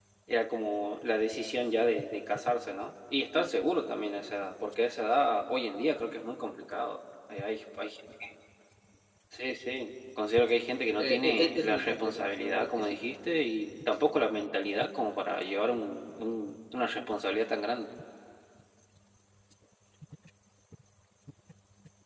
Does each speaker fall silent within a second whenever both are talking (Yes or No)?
No